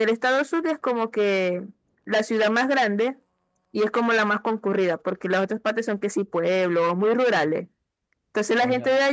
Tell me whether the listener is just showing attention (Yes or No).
Yes